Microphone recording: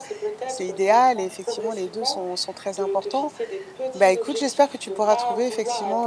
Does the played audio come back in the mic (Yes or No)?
Yes